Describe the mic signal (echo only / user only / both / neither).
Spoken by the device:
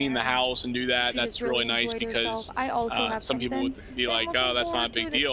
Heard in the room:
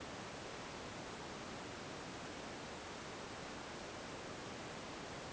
neither